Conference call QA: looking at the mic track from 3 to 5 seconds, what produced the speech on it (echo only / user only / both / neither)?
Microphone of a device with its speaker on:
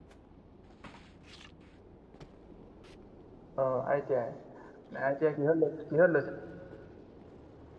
user only